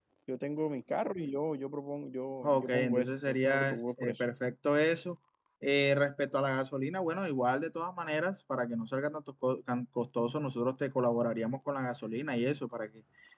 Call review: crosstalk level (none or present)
present